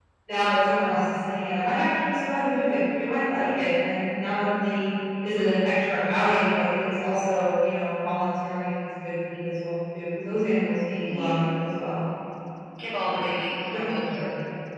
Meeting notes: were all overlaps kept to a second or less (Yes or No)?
Yes